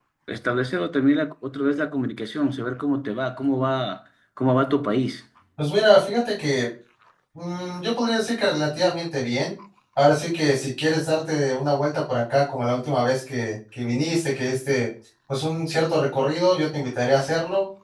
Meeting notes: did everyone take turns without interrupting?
Yes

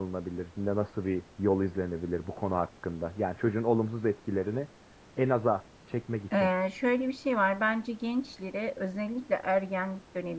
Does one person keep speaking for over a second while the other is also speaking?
No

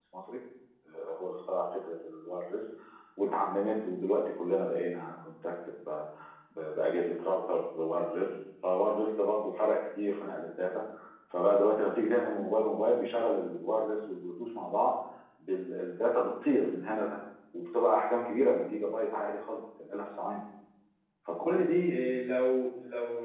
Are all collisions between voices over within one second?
Yes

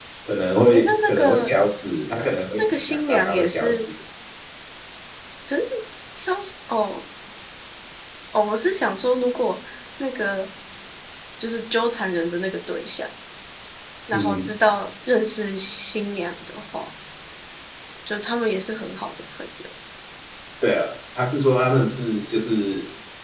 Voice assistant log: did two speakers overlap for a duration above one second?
Yes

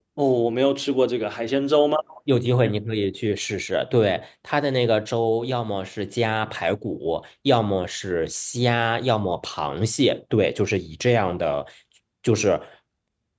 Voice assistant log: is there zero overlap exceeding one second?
Yes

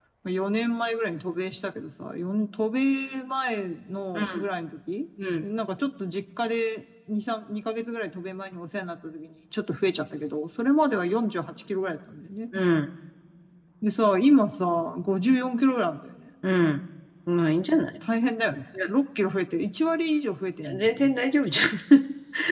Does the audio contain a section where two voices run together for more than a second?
No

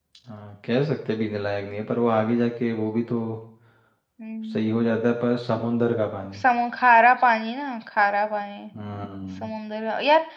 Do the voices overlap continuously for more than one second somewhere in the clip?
No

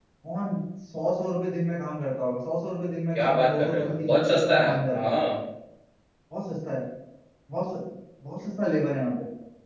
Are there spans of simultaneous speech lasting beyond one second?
Yes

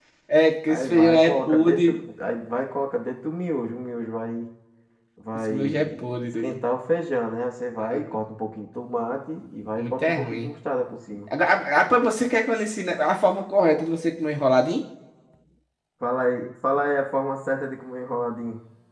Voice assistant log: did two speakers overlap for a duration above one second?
Yes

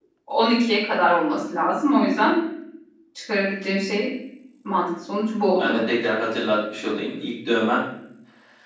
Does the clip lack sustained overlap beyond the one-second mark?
Yes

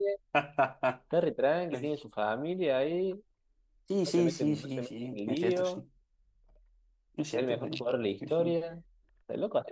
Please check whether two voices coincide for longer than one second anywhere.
Yes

